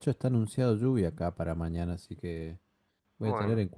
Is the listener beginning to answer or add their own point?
No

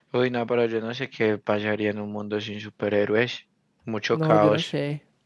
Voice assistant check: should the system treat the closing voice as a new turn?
Yes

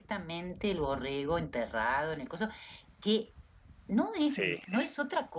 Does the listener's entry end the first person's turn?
No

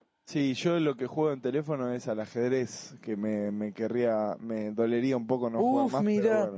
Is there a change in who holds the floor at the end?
Yes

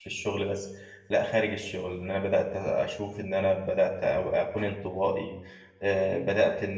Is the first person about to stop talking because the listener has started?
No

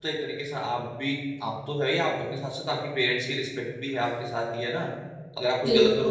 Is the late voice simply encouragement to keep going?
Yes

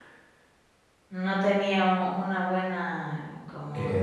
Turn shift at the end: Yes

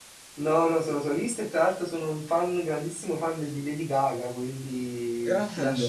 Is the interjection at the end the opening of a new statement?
No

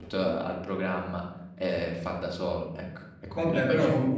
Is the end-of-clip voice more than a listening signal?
Yes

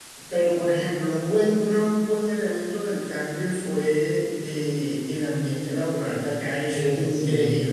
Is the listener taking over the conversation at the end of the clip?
No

